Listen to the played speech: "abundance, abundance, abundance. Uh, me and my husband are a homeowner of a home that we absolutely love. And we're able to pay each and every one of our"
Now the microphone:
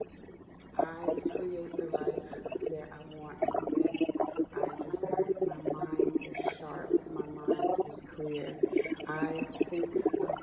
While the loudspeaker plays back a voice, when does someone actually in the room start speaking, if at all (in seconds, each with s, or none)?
0.7 s